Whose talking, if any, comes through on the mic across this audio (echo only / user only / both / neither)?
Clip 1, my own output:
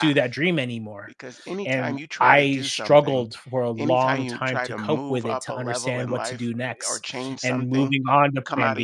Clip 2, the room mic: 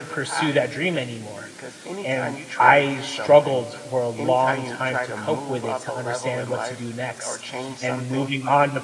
echo only